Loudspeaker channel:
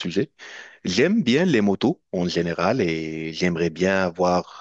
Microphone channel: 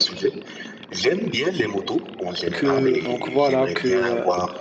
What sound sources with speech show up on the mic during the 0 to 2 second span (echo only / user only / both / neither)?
echo only